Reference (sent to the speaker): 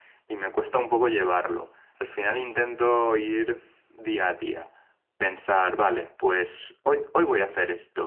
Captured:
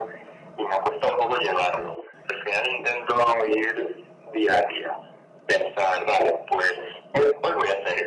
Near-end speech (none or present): none